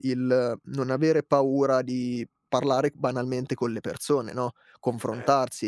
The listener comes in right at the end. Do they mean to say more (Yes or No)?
No